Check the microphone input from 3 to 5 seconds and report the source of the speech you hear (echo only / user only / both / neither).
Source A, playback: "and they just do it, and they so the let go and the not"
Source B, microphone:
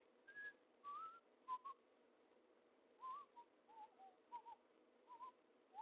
neither